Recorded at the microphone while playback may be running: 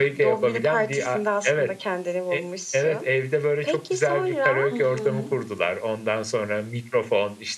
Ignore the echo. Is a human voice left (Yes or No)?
Yes